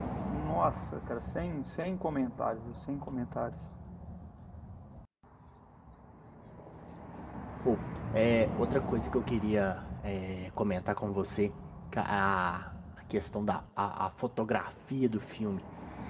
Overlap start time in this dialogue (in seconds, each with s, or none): none